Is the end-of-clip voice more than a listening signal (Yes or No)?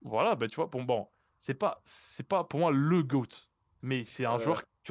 No